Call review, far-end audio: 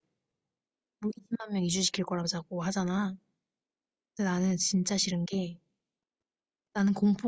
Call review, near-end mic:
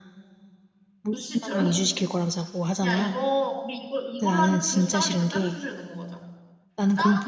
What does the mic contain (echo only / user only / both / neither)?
both